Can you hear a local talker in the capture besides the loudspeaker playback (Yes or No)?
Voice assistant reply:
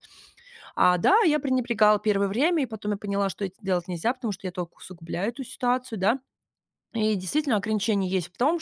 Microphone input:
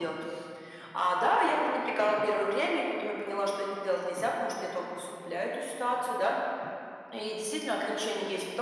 No